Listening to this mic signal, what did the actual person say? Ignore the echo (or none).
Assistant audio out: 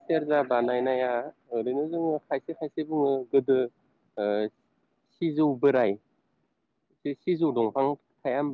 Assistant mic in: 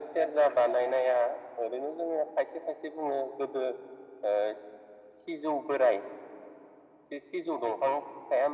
none